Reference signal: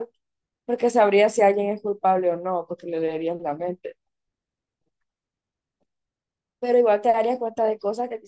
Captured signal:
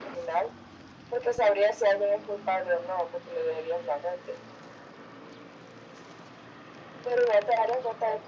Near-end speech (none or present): none